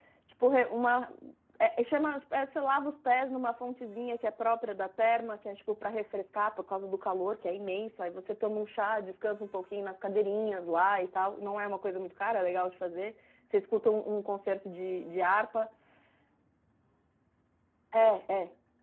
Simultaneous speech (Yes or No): No